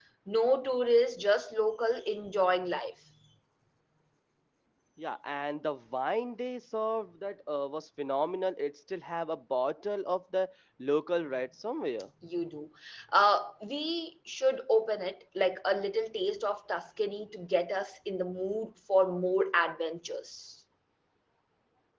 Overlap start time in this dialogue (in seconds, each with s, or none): none